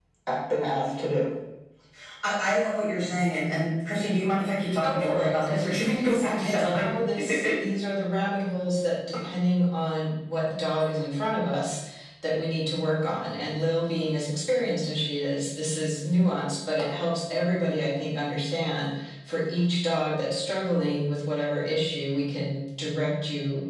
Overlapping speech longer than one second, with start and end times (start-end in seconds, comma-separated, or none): 4.8-6.9